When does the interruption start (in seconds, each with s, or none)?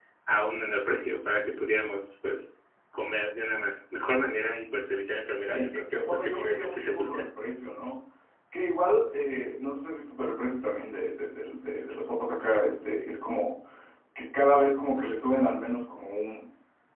5.5 s